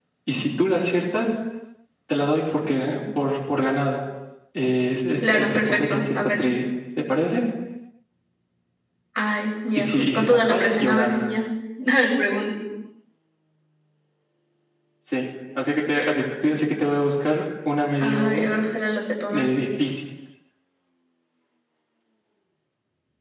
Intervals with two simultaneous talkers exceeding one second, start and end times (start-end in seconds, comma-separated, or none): 5.2-6.4, 9.8-11.2